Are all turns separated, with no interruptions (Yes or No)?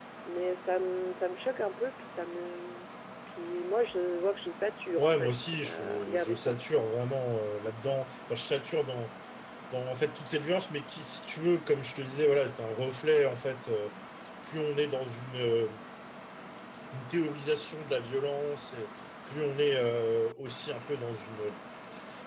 No